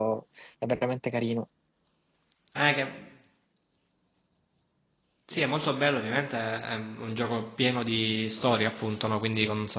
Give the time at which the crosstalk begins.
none

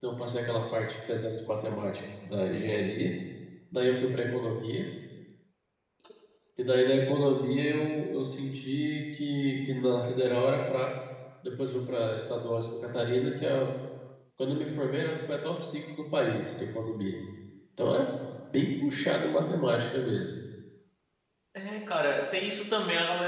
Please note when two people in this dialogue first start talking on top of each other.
none

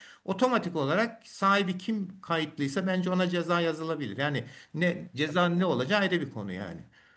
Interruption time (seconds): none

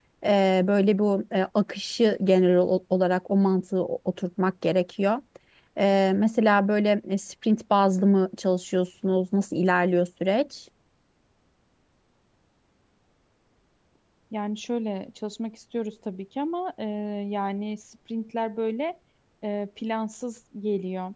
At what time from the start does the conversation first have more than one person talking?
none

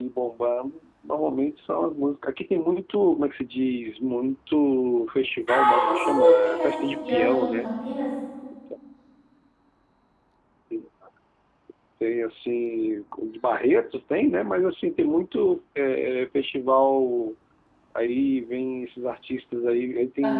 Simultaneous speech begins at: 5 s

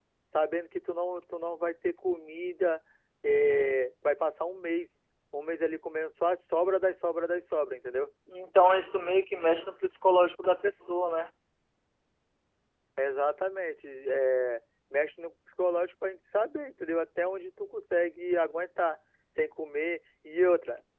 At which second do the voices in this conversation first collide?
none

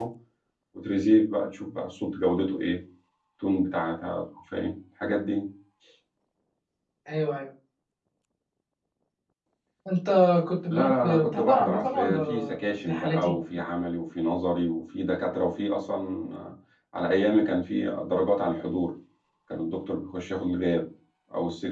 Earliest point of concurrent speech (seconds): 11 s

